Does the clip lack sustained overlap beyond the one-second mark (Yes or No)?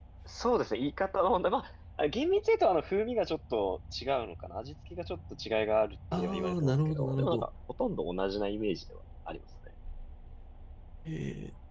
No